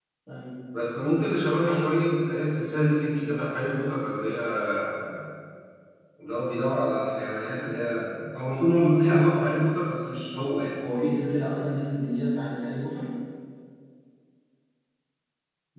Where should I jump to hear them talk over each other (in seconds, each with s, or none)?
none